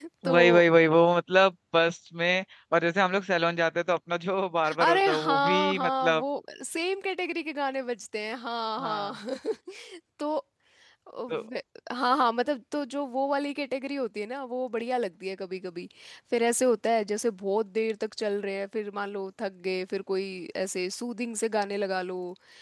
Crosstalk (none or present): present